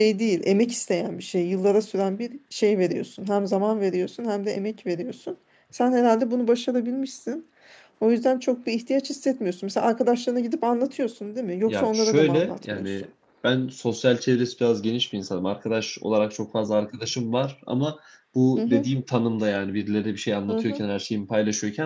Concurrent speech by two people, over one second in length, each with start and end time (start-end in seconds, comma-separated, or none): 11.7-12.9